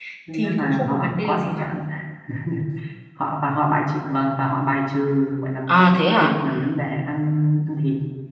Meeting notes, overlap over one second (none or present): present